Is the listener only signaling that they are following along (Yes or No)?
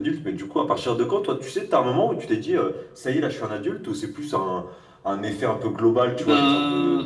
Yes